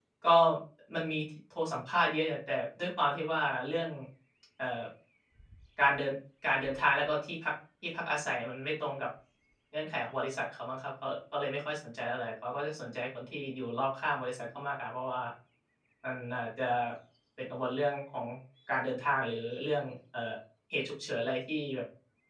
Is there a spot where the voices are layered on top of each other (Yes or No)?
No